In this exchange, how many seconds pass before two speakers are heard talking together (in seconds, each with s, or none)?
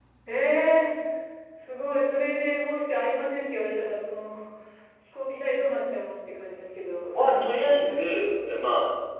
7.2 s